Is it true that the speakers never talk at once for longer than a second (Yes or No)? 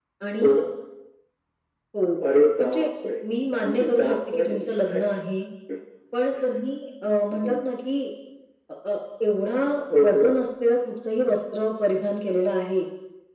No